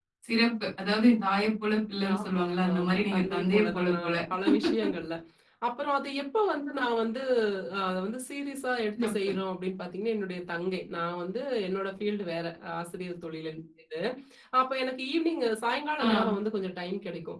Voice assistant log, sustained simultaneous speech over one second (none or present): present